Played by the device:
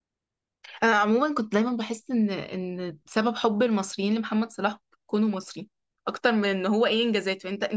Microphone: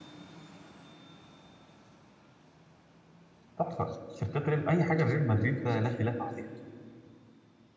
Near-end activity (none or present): present